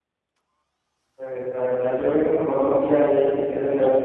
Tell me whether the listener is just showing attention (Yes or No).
Yes